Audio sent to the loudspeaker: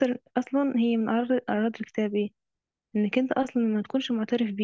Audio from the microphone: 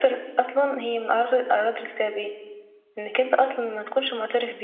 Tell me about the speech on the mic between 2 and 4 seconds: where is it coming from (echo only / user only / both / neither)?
echo only